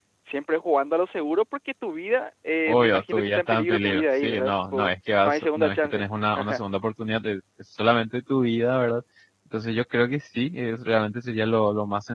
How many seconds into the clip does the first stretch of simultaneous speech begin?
3 s

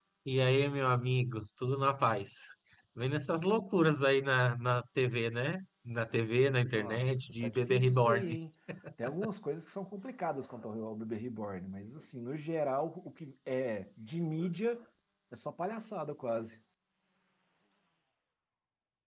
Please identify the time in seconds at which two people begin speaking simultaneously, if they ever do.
6 s

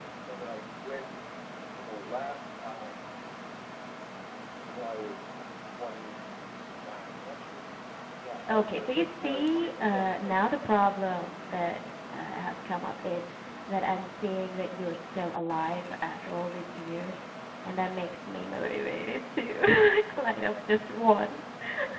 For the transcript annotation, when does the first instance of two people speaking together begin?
8 s

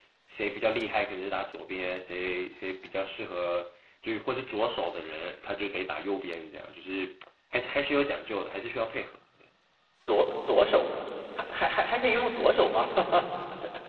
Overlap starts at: none

